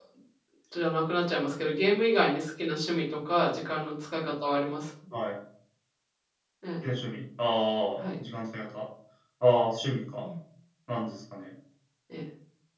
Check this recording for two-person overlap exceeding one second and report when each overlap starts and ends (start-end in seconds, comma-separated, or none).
none